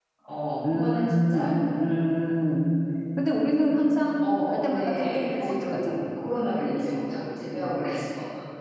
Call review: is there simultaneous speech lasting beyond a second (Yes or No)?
Yes